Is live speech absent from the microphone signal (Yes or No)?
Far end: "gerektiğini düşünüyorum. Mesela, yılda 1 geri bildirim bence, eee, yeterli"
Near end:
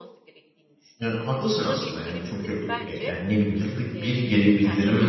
No